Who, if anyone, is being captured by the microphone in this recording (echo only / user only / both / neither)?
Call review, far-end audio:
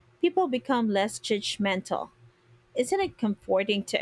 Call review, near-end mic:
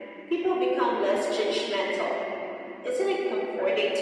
echo only